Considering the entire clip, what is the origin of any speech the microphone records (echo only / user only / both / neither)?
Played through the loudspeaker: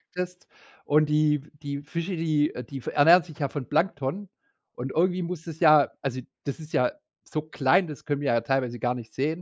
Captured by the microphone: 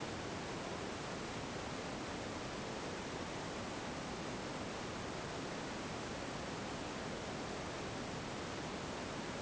neither